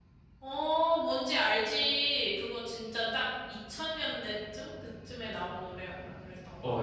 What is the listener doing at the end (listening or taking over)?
taking over